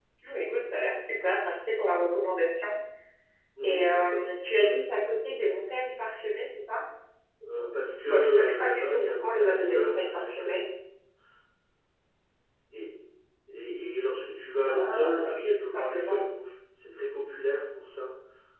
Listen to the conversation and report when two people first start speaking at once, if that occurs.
4 s

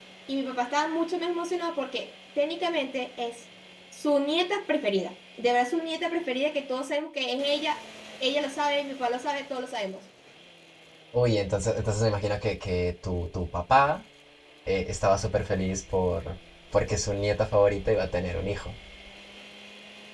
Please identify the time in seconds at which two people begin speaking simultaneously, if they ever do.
none

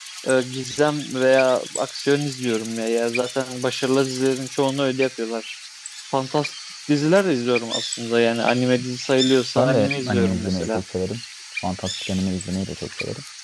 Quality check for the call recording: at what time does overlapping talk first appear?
10 s

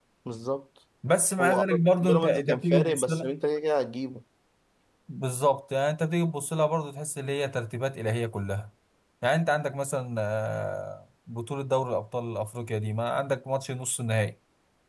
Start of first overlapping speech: 1 s

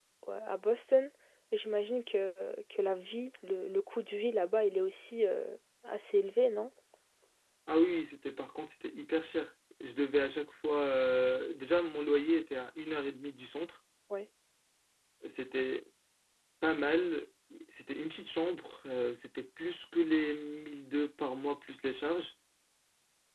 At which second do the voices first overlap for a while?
none

